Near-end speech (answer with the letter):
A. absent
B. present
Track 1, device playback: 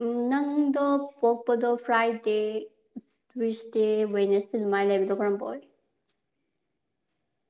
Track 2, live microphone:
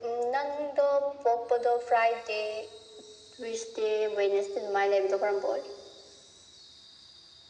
A